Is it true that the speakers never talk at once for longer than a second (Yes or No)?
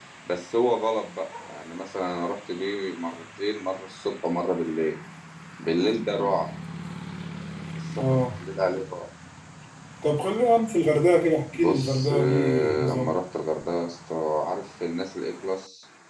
No